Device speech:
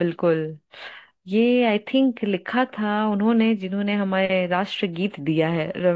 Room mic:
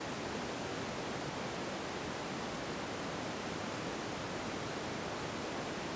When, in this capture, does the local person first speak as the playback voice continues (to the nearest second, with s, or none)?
none